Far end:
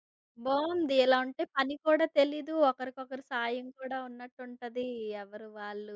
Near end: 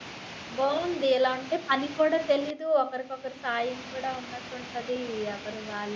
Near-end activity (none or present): none